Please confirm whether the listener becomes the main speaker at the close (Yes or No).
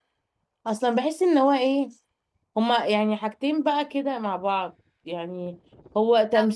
No